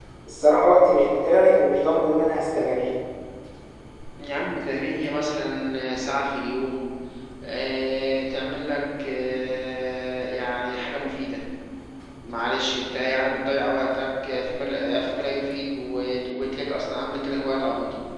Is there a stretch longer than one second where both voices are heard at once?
No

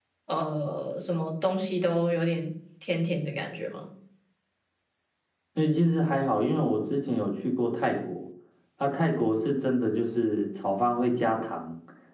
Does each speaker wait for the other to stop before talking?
Yes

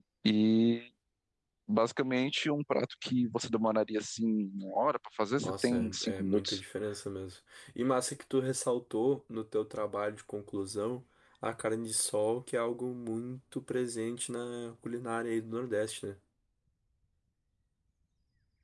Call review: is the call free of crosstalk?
No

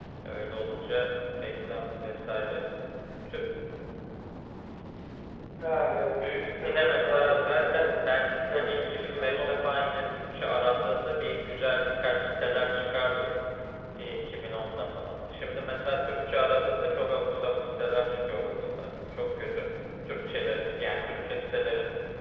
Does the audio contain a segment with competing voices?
Yes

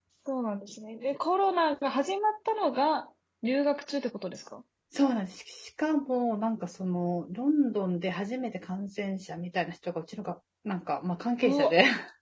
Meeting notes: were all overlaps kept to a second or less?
Yes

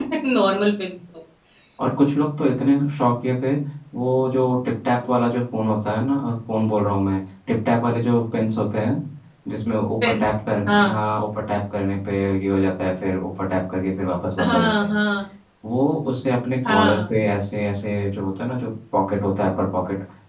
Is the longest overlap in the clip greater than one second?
No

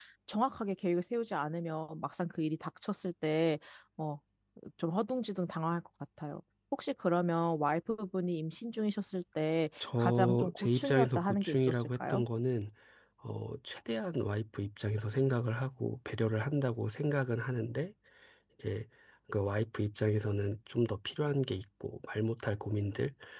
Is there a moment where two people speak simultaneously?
Yes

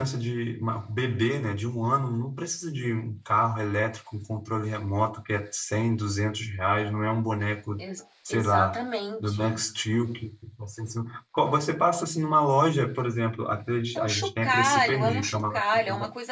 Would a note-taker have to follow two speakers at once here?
Yes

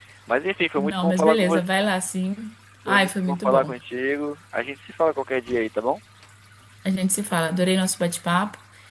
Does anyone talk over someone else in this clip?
Yes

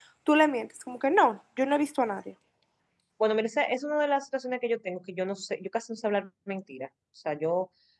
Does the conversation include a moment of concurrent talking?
No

